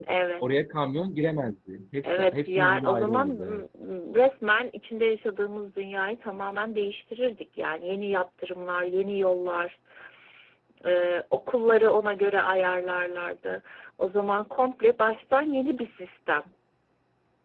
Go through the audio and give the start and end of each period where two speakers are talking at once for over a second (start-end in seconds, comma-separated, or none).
2.0-3.6